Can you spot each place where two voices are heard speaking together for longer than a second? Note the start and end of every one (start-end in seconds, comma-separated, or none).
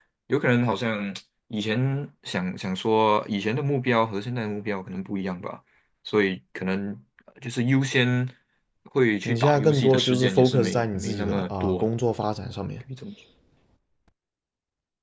9.2-11.9